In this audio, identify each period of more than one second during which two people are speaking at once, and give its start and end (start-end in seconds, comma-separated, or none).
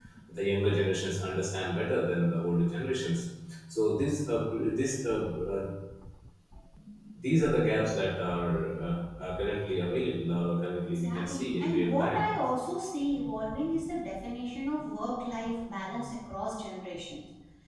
10.9-12.2